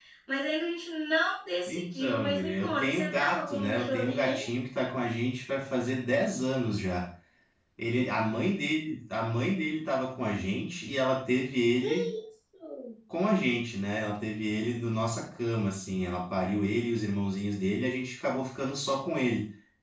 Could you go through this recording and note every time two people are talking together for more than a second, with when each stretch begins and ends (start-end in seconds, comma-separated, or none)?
1.7-4.4